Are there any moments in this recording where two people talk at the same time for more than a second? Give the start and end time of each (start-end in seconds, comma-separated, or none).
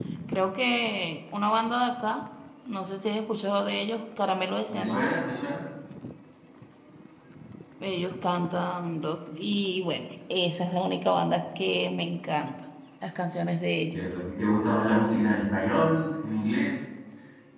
none